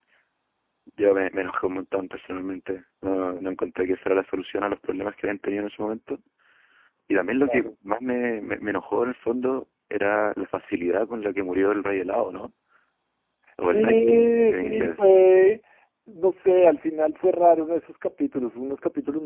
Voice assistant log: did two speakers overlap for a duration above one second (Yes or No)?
Yes